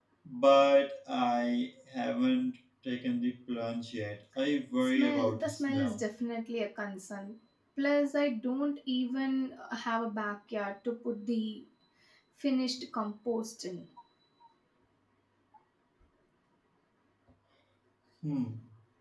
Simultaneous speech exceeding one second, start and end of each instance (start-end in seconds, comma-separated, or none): 4.8-6.0